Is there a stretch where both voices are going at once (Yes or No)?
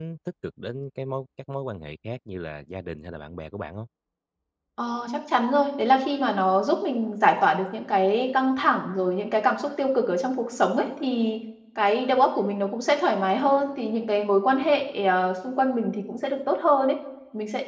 No